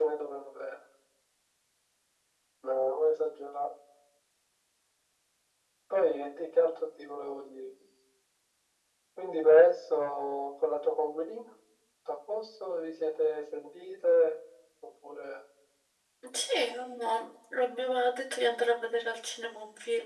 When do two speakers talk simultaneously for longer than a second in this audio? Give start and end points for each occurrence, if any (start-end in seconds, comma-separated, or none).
none